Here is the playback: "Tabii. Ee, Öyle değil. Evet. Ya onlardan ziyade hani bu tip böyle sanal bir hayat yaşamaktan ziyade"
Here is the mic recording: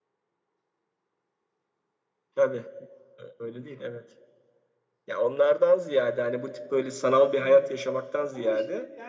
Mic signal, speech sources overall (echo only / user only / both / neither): both